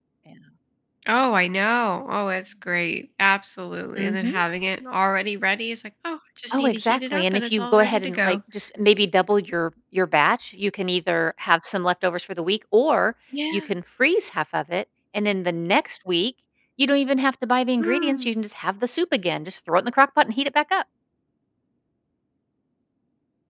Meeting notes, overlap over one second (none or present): present